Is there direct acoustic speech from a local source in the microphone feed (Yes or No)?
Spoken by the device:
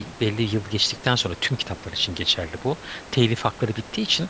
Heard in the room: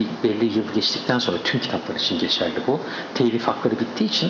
No